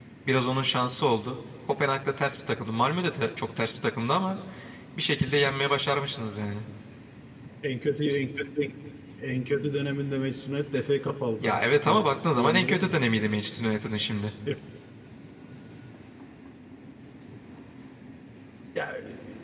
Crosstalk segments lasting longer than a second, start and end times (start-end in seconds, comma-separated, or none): 11.4-13.0